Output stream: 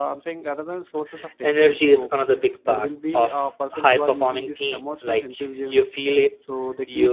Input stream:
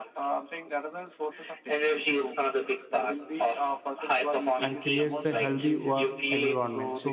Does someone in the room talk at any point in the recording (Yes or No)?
Yes